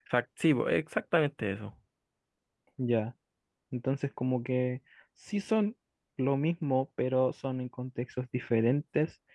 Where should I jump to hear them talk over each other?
none

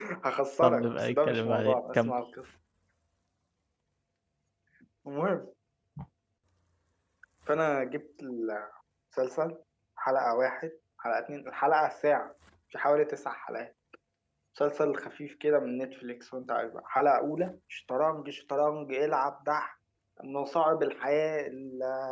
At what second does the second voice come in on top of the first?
0.6 s

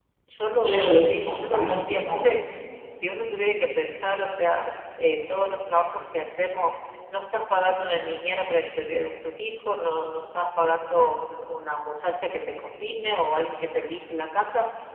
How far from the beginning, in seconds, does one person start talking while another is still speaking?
0.6 s

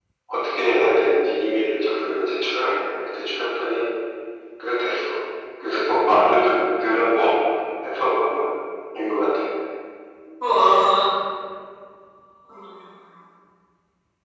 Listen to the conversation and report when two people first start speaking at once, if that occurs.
none

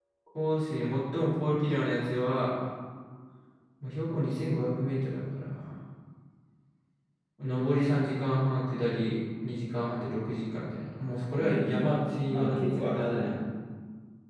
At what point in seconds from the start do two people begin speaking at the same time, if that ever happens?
11.4 s

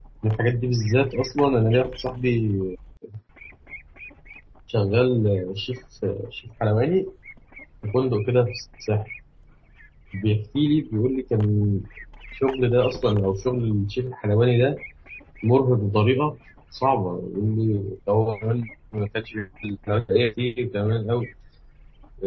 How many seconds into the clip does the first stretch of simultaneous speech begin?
none

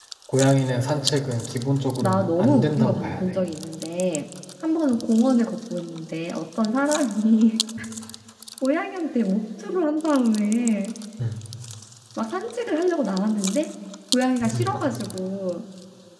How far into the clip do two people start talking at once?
2.0 s

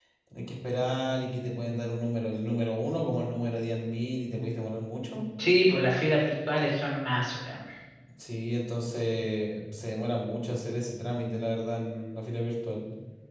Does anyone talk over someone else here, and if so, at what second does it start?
none

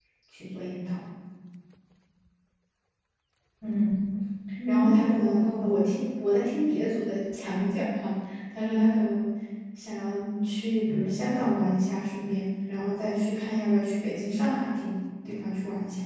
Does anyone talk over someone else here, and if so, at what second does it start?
4.7 s

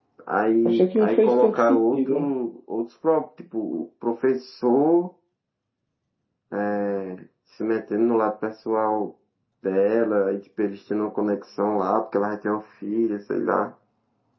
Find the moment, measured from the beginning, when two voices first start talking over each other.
0.7 s

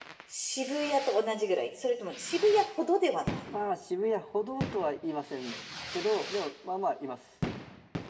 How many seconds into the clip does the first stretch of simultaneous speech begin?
none

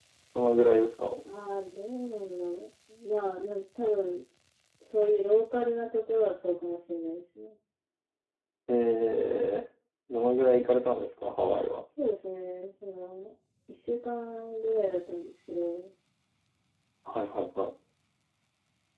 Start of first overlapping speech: none

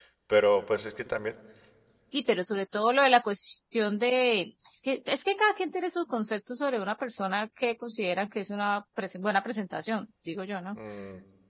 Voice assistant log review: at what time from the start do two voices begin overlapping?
none

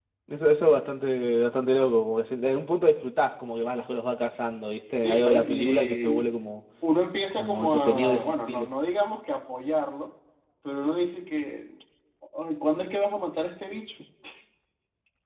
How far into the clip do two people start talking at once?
5.0 s

